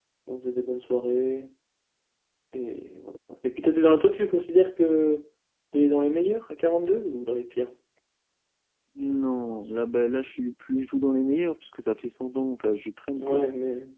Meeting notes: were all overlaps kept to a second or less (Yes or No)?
Yes